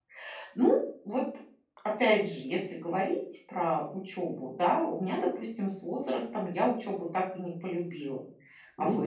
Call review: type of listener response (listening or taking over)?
taking over